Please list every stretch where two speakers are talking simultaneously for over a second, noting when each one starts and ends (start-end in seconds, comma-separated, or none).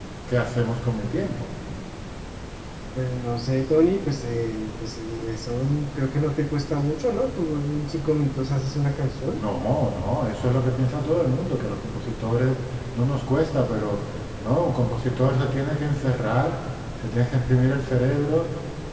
none